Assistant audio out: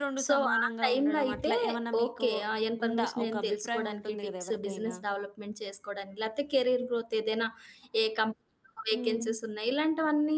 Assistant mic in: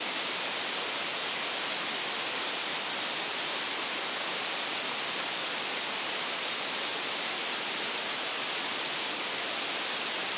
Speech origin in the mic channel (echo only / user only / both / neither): neither